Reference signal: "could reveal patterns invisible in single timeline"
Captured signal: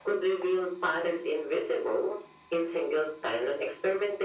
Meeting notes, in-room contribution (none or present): none